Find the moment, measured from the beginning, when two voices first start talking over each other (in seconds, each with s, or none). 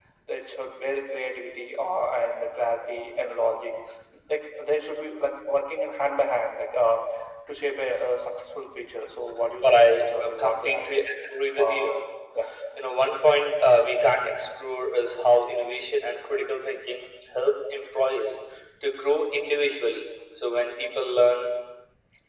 9.6 s